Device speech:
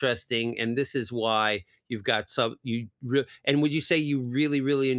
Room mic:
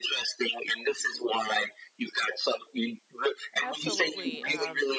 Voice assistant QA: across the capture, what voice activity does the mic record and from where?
both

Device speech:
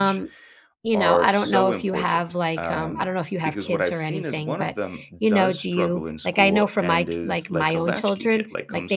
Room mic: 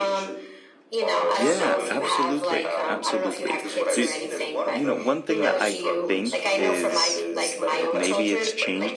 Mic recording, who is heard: both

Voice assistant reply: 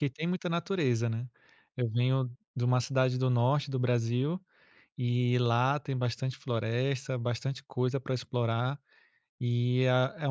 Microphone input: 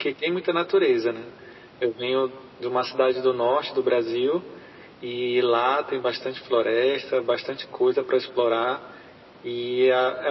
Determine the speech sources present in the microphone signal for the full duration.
echo only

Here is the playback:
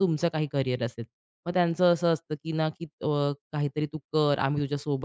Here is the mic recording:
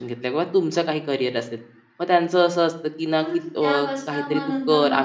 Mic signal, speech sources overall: both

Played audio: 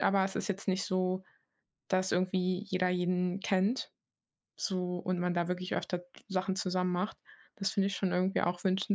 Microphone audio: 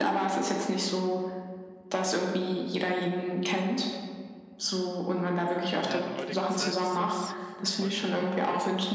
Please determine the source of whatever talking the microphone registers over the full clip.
both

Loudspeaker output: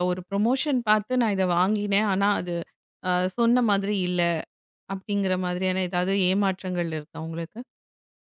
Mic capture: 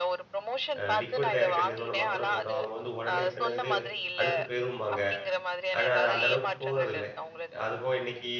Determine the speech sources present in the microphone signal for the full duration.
both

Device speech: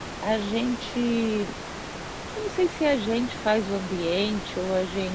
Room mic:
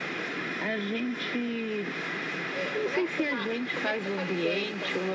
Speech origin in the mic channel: both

